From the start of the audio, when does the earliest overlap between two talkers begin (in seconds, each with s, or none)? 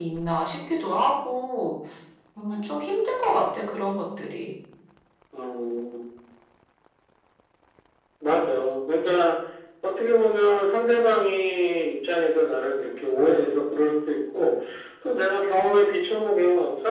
none